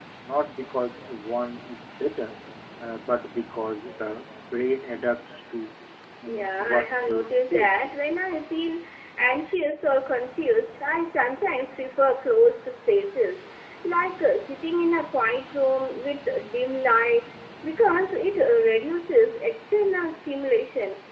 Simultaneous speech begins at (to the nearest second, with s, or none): 6 s